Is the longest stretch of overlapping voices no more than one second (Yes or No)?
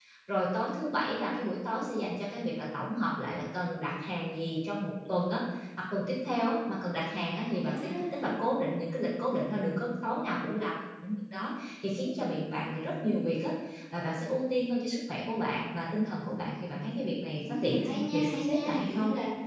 No